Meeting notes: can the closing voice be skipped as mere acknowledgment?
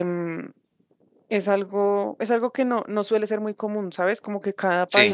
Yes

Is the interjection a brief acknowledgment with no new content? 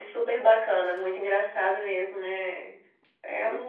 Yes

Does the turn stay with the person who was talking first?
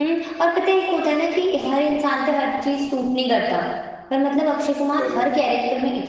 Yes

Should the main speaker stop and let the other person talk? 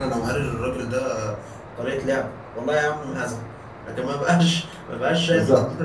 No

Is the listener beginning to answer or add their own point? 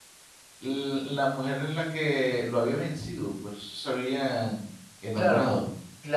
Yes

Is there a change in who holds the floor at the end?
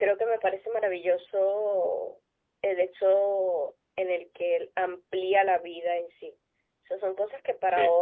No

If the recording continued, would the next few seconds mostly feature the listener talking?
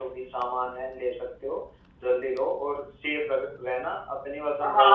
Yes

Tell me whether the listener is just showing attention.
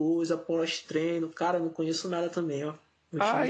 No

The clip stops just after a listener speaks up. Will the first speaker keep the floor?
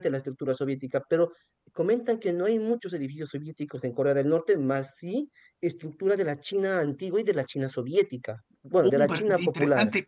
No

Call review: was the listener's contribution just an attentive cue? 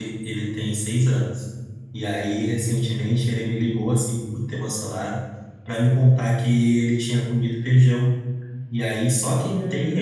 Yes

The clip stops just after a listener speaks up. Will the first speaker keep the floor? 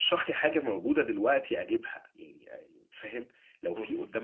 Yes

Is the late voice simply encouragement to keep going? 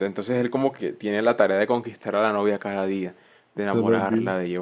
Yes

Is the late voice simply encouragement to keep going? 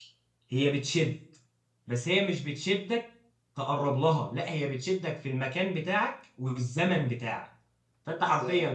Yes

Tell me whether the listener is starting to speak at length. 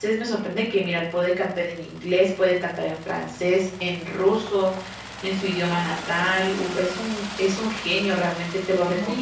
Yes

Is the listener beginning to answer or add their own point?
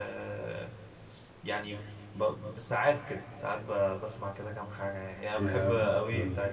No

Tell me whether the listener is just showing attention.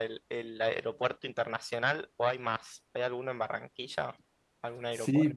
No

